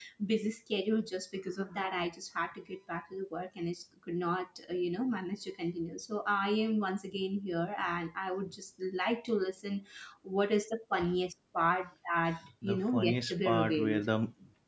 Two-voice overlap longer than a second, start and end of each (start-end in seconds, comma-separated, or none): 12.6-14.1